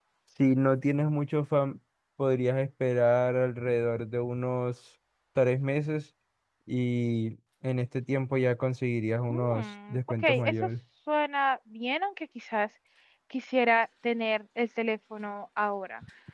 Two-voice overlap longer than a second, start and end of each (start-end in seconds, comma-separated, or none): 9.3-10.7